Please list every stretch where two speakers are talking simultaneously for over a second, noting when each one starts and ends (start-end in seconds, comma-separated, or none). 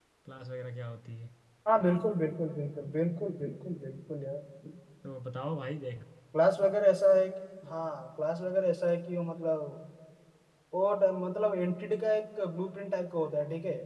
none